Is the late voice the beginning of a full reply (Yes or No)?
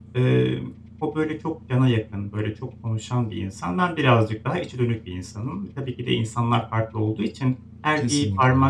No